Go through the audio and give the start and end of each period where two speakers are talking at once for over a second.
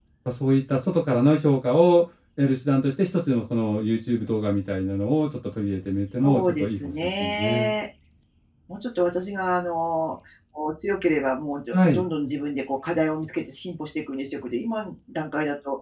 6.2-7.7

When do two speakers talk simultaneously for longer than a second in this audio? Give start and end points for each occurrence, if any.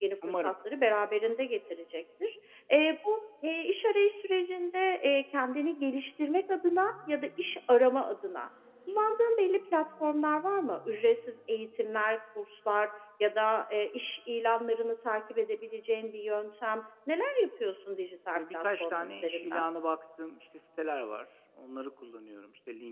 18.4-19.6

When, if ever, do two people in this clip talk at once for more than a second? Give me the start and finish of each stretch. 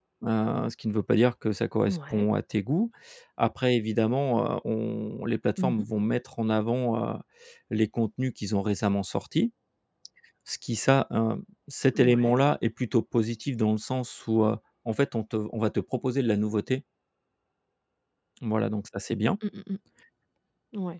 none

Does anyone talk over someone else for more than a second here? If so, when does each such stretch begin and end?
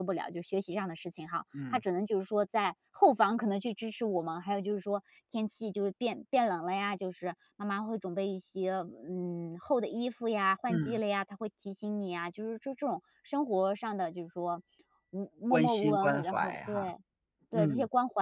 15.5-16.8

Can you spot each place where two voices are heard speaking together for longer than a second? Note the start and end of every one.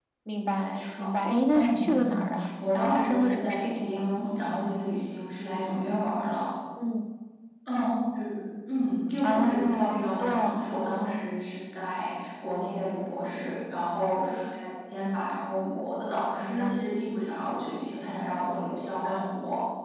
1.6-4.1, 9.2-10.5

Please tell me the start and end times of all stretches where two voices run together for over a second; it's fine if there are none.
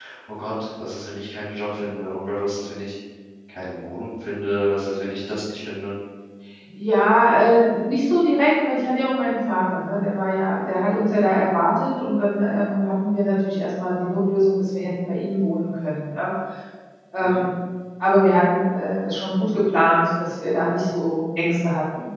none

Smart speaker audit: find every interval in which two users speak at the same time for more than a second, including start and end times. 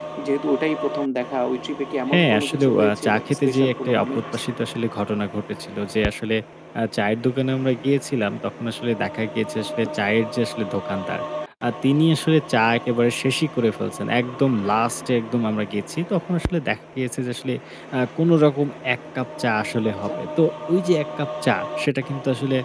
2.1-4.2

